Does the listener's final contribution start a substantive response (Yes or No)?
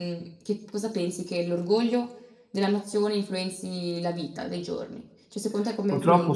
Yes